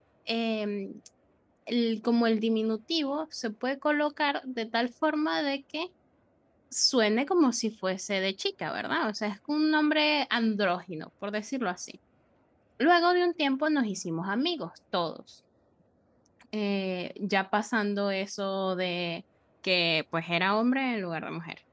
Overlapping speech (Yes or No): No